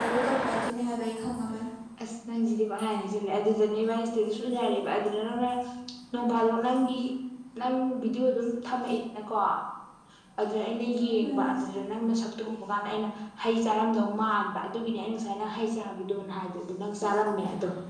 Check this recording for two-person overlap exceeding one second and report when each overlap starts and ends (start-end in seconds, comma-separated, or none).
none